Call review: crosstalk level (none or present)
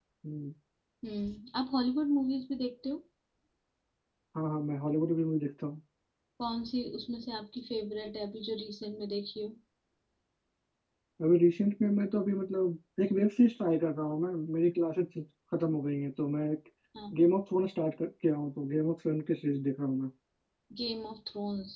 none